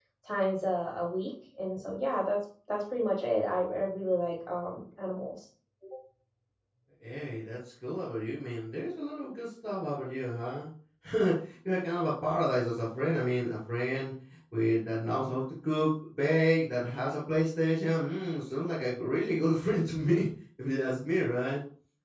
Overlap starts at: none

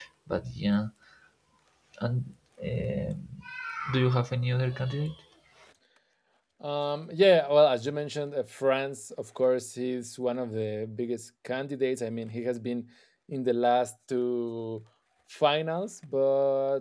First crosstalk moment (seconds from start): none

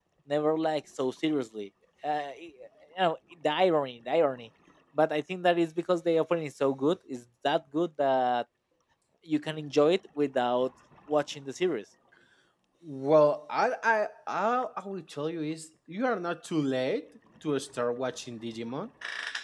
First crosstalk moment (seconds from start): none

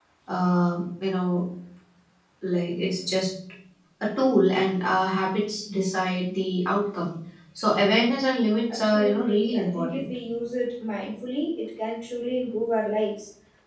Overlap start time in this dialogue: 8.7 s

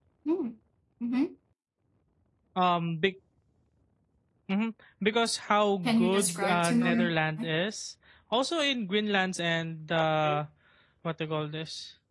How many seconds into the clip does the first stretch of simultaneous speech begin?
5.8 s

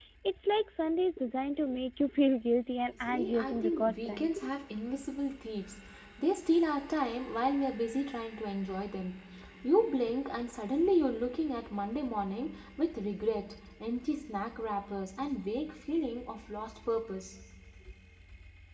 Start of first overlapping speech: 3.0 s

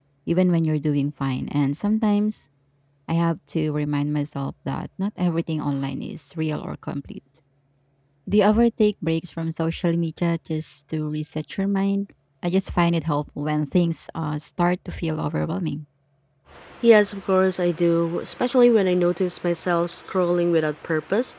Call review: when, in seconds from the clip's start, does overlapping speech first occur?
none

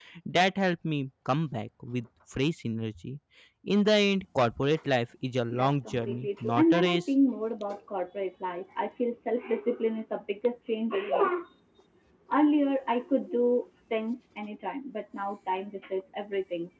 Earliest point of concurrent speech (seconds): 5.5 s

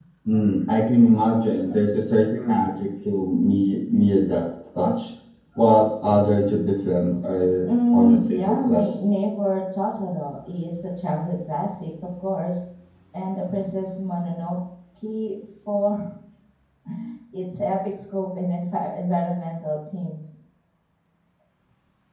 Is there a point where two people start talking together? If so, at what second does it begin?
7.6 s

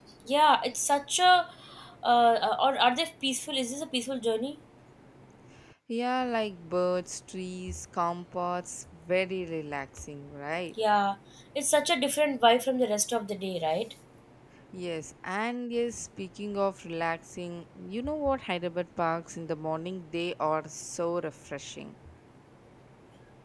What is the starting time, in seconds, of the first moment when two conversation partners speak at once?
none

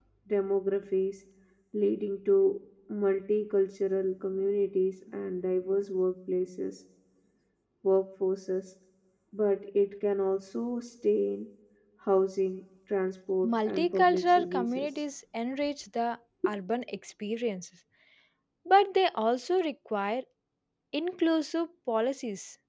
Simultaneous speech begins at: 13.4 s

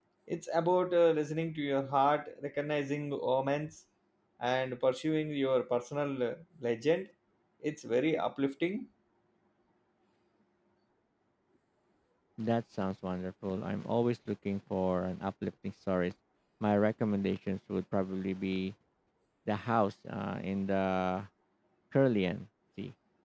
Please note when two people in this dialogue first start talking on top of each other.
none

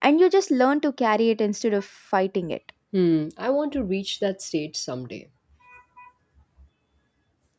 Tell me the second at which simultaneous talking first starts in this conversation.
none

